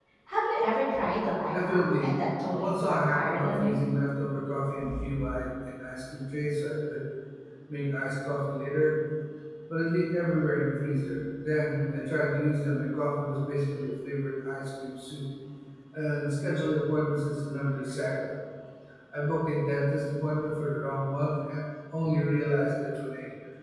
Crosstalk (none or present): present